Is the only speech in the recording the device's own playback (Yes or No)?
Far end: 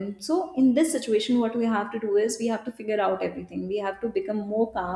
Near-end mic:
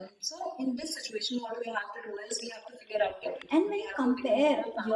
No